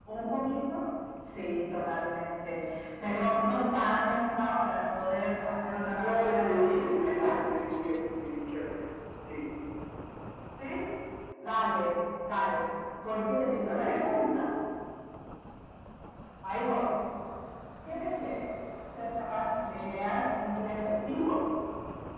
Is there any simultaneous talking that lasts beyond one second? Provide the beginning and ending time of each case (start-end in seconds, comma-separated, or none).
6.0-7.4